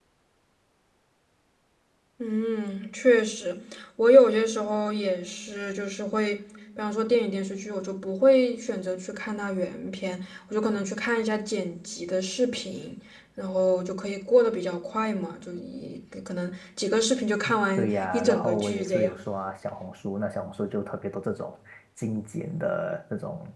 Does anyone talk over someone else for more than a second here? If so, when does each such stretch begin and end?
17.8-19.2

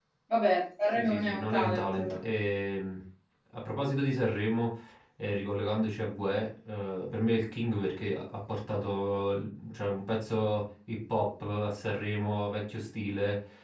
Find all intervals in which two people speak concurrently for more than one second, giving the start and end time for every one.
0.9-2.2

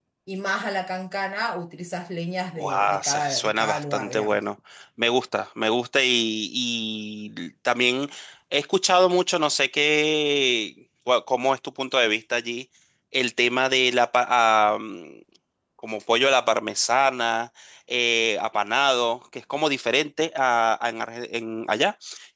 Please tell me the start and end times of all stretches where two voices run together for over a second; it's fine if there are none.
2.6-4.5

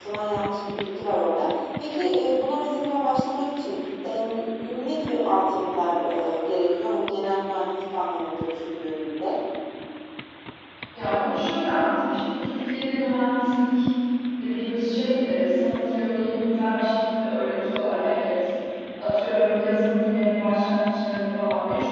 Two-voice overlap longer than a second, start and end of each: none

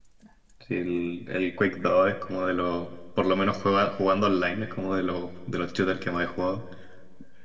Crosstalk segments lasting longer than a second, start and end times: none

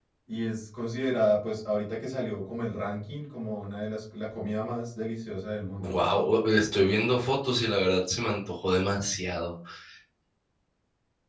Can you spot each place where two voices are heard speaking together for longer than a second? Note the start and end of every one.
none

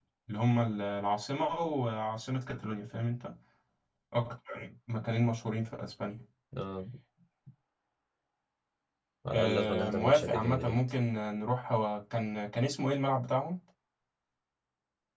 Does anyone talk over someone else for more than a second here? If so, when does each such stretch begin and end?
9.3-10.8

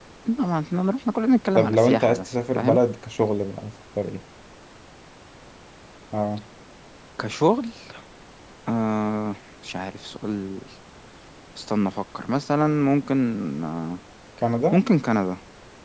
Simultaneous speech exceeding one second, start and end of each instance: 1.6-2.8

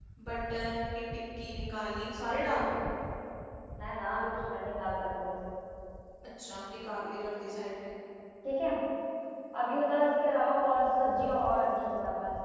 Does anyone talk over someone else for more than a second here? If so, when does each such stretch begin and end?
none

